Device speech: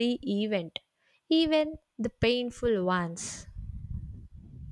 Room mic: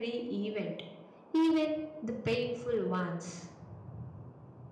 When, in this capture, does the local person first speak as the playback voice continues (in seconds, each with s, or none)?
none